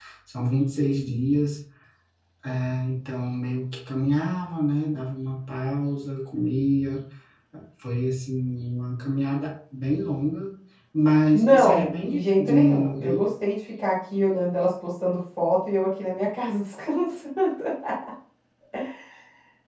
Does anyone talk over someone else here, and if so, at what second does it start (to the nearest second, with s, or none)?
11 s